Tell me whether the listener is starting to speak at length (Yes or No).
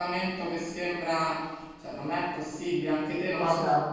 Yes